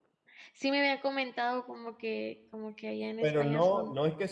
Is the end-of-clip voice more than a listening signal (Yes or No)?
Yes